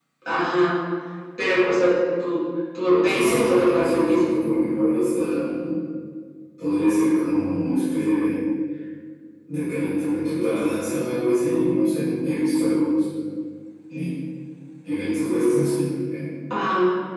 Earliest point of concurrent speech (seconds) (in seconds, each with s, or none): 2.9 s